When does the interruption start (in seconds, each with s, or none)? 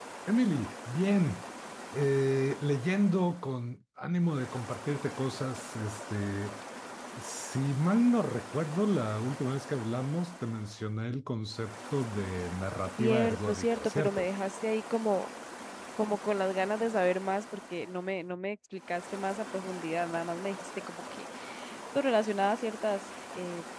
13.0 s